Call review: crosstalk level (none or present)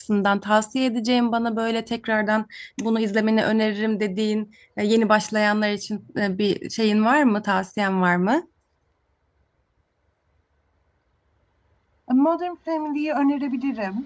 none